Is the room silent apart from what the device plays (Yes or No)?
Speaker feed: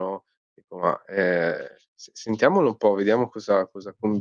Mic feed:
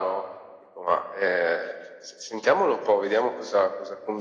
Yes